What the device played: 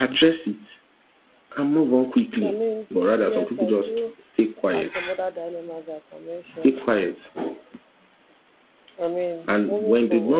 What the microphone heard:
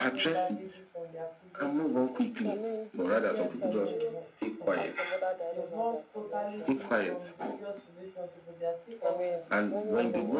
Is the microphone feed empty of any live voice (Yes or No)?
No